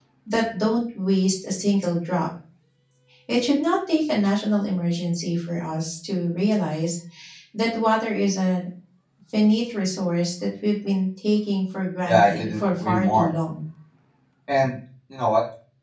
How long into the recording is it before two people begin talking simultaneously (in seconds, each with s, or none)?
12.0 s